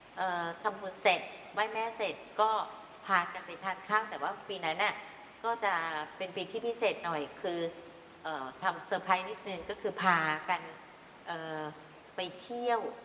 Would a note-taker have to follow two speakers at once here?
No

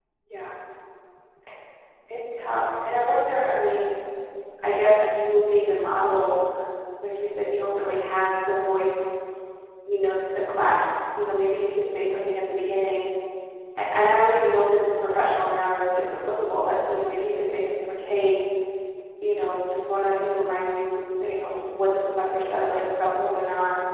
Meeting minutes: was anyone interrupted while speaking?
No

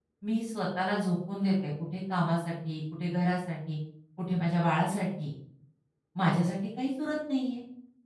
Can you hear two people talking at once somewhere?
No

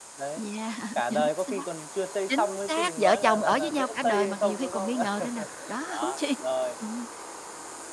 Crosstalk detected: Yes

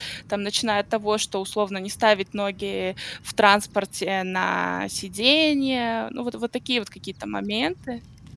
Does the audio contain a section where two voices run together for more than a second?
No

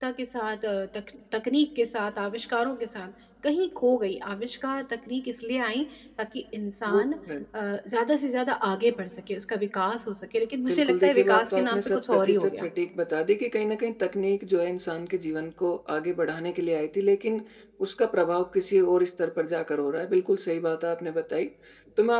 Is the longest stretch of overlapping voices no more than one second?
No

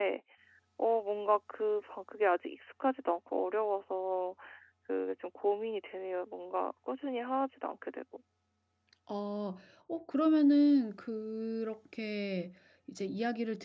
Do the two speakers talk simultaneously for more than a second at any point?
No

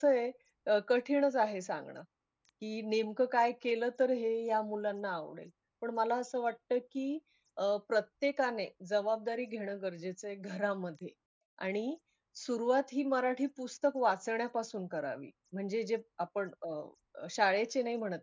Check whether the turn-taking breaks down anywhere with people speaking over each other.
No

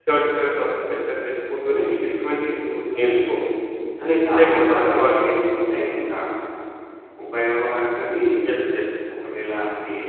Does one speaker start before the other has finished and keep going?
Yes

